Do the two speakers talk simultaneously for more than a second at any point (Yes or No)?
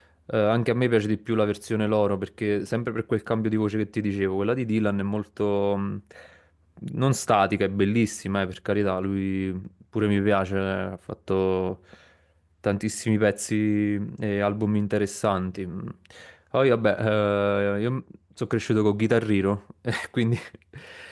No